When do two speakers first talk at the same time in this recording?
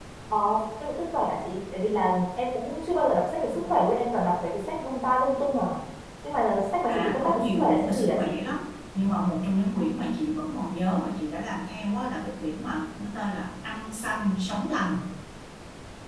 6.9 s

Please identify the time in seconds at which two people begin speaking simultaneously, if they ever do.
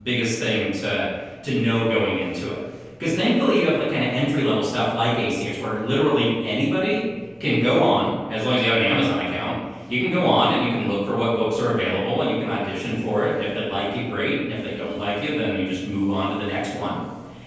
none

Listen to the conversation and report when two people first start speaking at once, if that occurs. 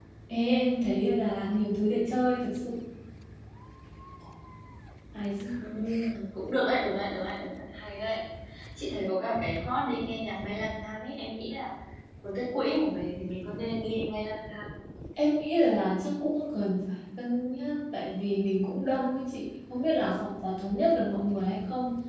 none

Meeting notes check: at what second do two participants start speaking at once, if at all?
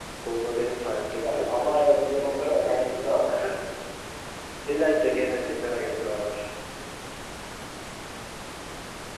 1.2 s

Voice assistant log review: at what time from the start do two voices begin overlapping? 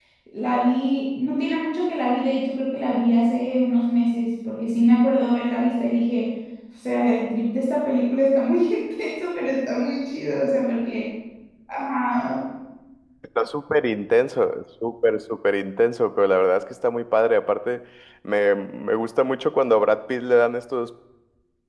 none

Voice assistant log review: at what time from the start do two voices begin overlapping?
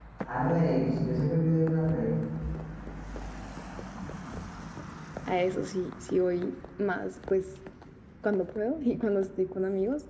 none

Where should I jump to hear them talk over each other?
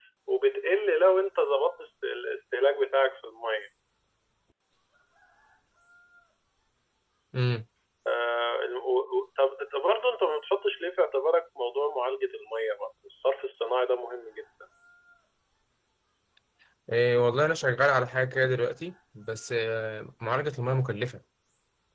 none

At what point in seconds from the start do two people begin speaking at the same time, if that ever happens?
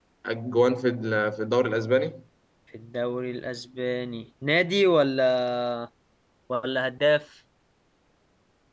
none

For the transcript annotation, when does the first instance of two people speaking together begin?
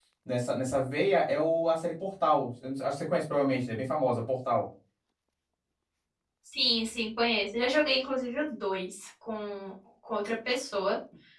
none

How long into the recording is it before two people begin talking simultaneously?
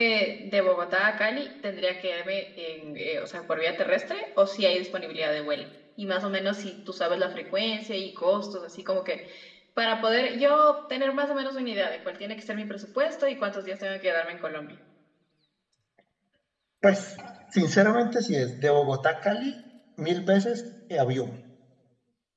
none

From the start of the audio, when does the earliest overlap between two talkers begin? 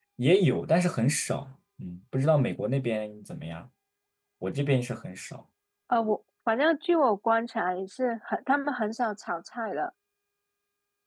none

